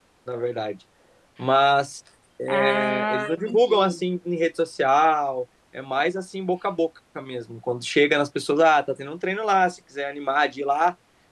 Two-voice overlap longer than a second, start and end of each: 2.5-4.0

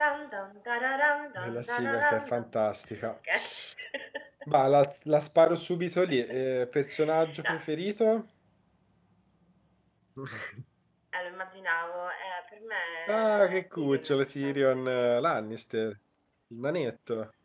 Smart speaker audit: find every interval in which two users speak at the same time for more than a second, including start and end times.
1.4-2.6, 13.1-15.2

